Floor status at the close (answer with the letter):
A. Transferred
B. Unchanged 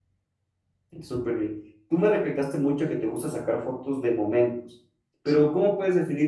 B